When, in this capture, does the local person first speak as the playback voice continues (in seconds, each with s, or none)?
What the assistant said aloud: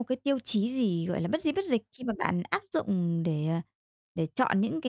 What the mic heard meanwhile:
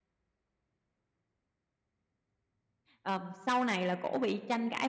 3.0 s